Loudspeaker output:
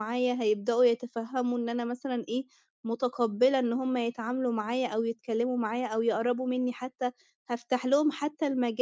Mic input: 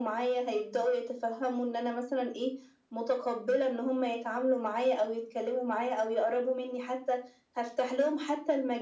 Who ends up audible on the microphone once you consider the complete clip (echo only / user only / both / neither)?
echo only